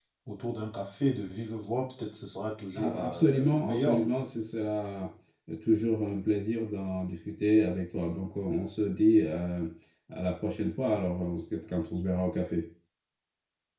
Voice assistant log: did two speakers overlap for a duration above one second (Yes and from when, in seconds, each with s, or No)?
Yes, from 2.7 s